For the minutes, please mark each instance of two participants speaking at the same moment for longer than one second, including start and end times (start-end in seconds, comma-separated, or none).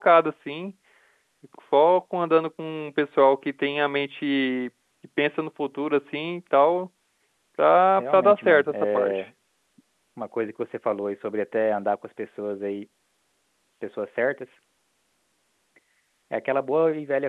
8.0-9.2